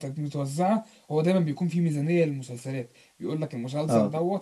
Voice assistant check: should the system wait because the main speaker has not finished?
Yes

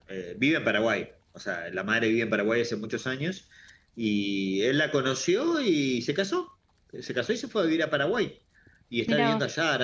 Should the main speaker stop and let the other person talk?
No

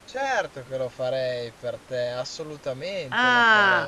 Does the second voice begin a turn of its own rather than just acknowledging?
Yes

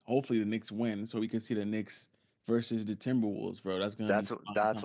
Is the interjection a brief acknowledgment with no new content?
No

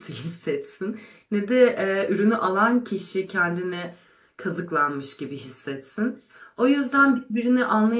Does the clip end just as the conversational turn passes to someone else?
No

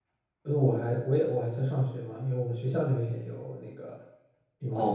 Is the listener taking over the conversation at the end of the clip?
Yes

